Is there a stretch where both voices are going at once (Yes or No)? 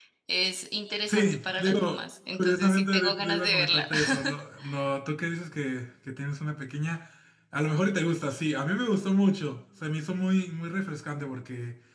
Yes